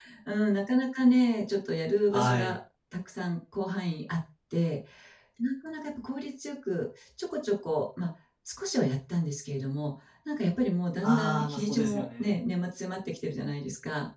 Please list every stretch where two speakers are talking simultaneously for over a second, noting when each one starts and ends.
11.0-12.4

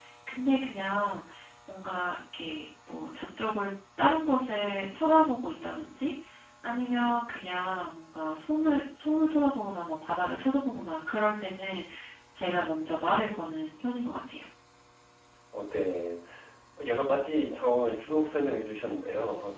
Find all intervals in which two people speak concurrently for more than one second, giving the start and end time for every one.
none

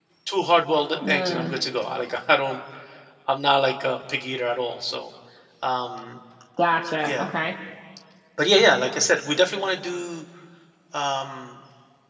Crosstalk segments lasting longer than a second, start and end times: none

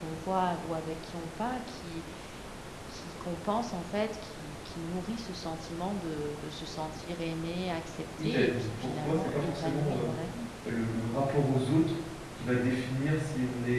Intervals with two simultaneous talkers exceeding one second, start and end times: 8.2-10.0

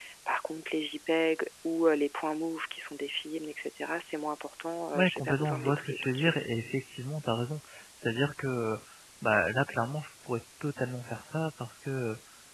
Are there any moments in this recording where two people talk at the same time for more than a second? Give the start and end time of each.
5.0-6.4

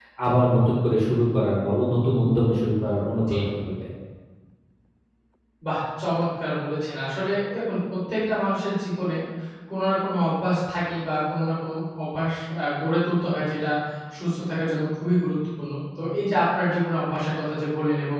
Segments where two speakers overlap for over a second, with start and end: none

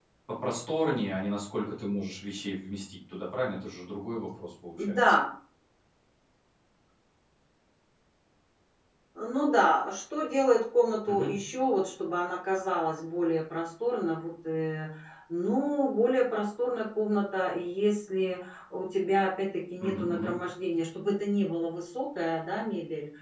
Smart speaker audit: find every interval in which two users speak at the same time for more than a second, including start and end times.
none

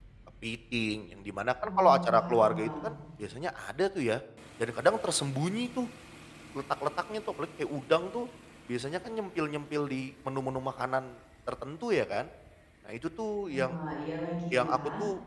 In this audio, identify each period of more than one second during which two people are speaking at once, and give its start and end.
1.6-2.9

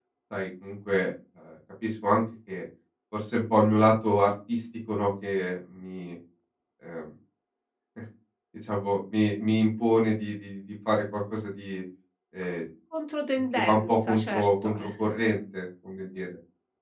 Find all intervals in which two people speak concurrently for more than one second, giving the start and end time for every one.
13.6-14.9

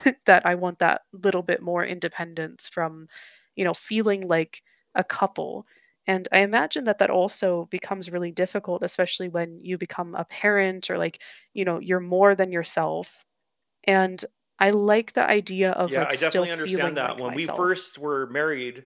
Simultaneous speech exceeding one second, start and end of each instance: 15.9-17.7

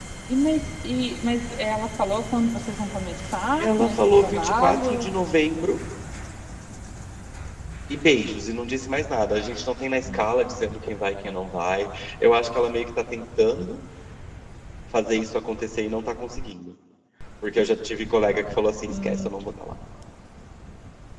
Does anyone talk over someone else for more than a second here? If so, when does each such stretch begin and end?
3.6-5.1

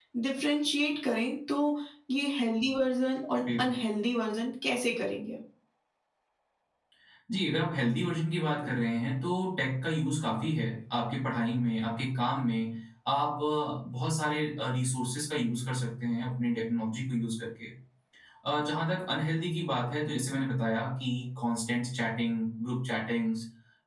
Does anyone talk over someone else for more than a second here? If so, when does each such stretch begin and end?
none

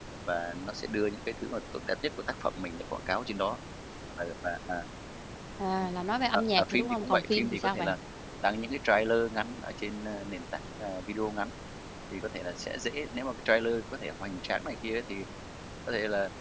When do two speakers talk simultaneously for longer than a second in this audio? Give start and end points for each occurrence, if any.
6.3-8.0

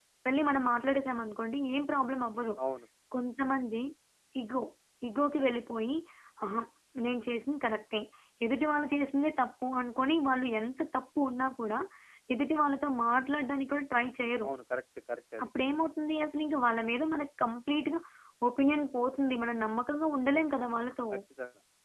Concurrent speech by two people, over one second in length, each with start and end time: none

